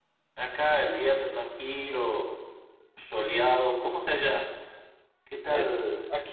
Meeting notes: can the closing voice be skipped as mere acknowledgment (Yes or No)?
No